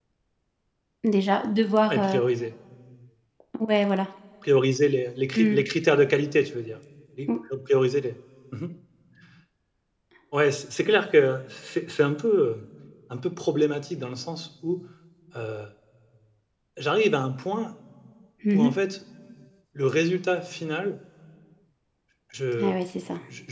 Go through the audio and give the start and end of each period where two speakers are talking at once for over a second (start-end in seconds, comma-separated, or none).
none